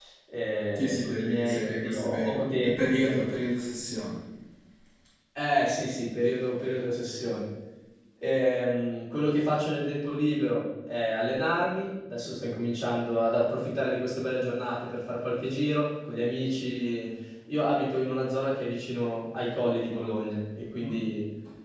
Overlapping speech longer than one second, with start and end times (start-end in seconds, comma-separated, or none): 0.8-3.4